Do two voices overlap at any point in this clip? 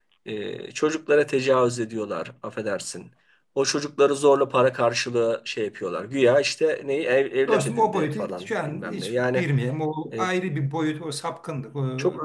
Yes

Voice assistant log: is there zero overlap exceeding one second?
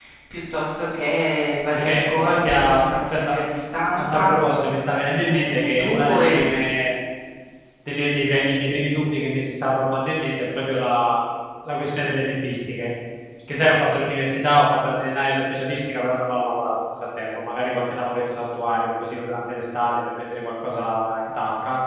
No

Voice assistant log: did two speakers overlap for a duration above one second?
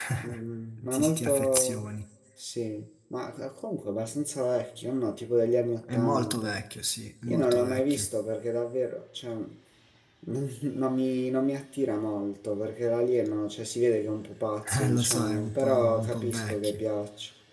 Yes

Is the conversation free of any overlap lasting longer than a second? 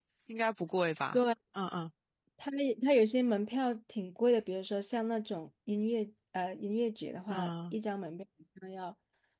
Yes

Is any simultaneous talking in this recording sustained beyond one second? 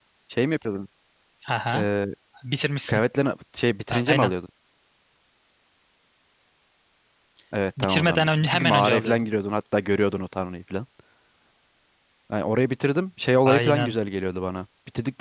Yes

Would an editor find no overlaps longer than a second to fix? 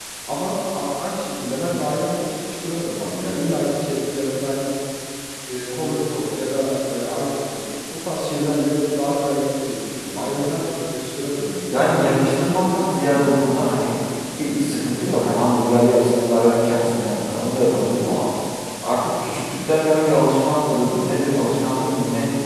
Yes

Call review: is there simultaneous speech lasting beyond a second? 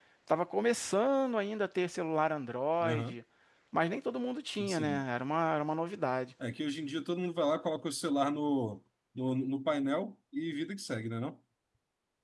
No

